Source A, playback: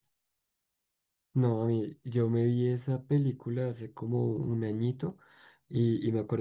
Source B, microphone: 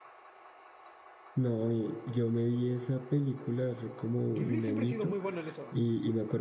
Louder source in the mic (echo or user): echo